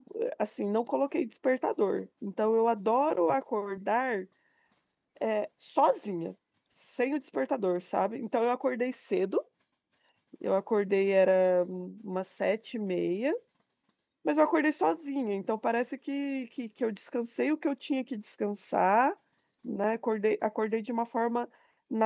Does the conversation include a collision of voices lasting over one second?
No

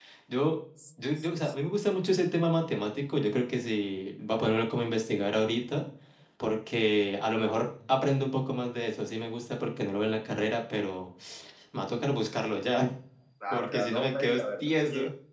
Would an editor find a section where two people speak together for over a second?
Yes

